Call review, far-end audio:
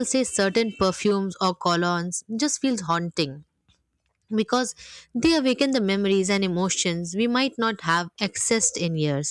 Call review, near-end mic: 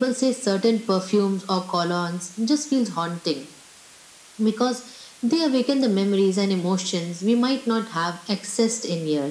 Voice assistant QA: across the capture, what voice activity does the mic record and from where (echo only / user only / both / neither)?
echo only